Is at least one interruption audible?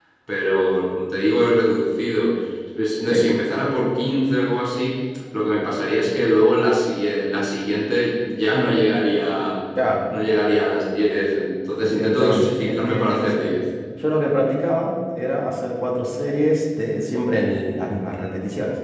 Yes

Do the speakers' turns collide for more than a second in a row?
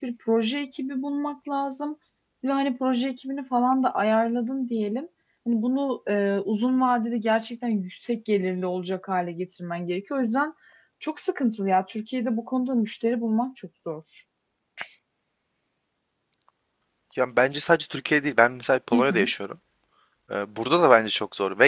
No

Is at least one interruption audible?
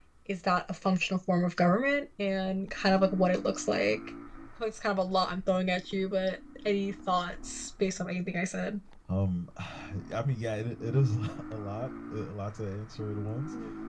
No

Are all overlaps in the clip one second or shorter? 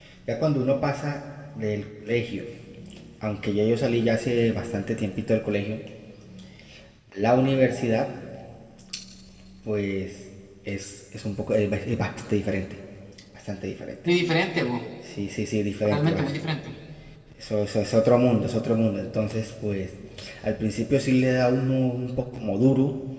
Yes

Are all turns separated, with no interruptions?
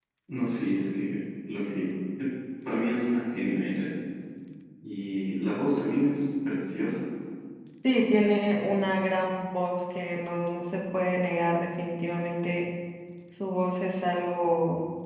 Yes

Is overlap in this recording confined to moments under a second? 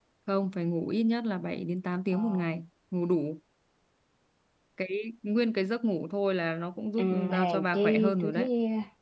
No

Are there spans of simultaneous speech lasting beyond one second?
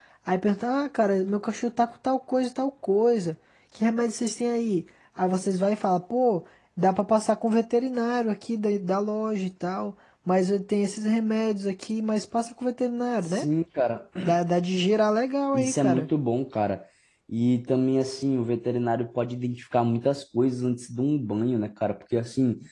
No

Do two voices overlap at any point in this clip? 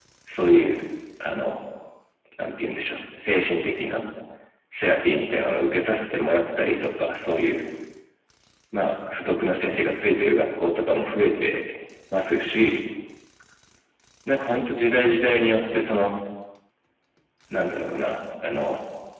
No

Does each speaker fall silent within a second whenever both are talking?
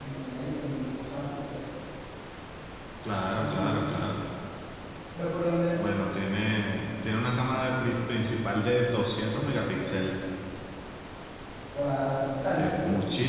Yes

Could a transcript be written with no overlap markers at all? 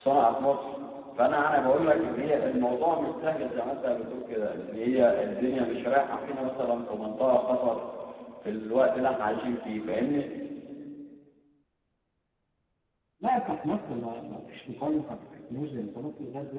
Yes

